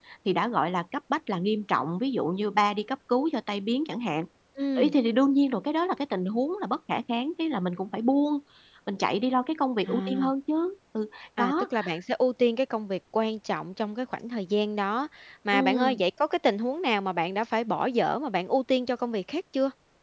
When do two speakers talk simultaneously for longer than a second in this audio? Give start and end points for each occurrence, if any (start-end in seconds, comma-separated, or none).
none